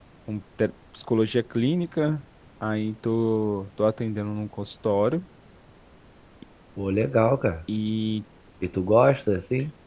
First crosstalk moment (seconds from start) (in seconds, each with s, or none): none